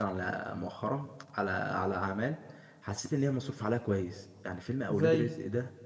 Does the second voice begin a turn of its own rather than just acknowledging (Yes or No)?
No